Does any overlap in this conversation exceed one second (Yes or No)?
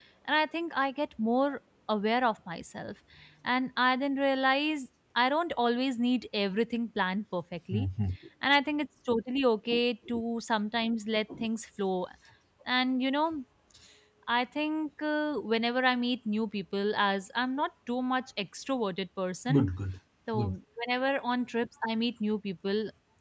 No